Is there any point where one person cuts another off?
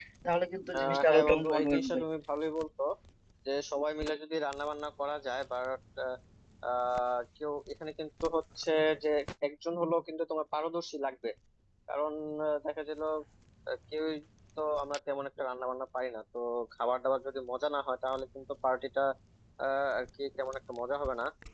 Yes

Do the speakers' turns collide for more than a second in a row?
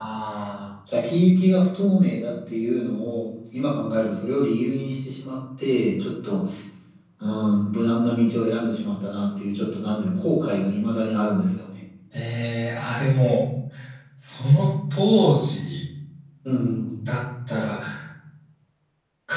No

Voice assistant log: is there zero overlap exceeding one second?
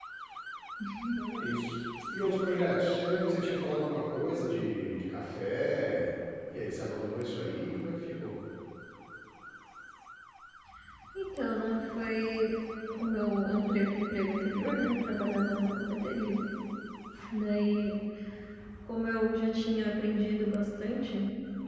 Yes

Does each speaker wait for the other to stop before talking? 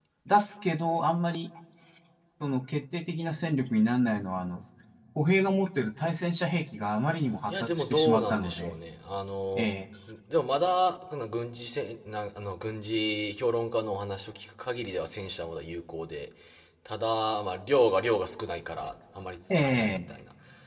No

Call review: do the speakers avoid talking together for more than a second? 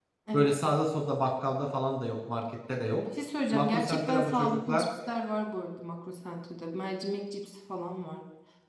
No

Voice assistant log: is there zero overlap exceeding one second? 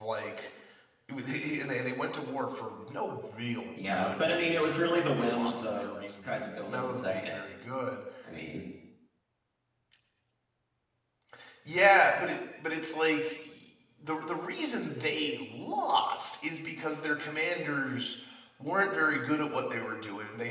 No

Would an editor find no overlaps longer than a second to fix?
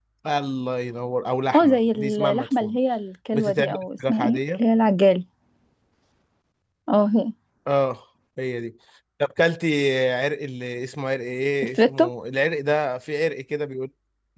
No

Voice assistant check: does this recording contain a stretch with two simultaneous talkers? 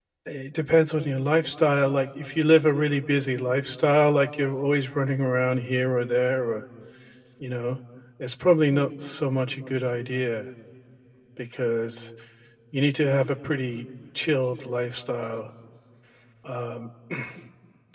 No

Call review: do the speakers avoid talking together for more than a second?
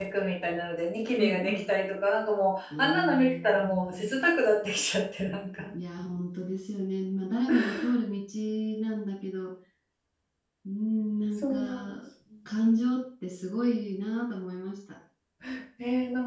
No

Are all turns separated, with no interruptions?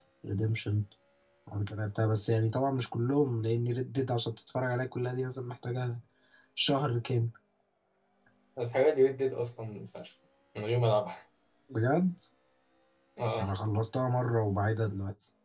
Yes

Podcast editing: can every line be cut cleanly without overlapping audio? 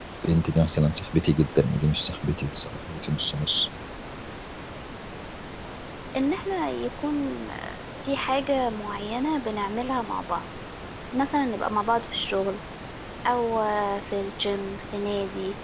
Yes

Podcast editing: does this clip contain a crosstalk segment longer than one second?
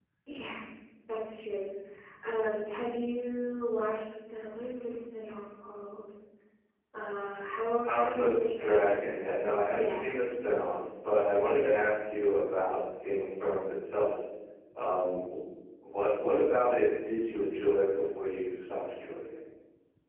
Yes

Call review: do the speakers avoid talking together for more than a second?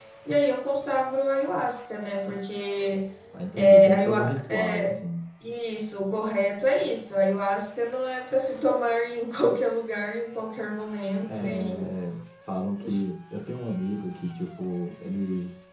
No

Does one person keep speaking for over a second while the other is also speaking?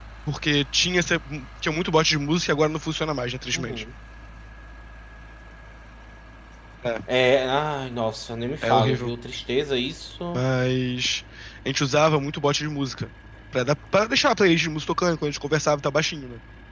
No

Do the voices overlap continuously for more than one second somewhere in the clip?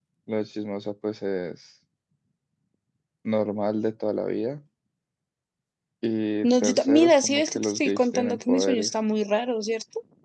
Yes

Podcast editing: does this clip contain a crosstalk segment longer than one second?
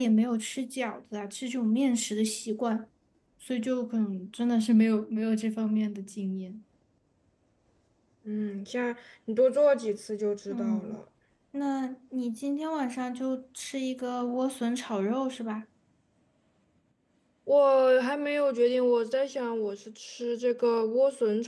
No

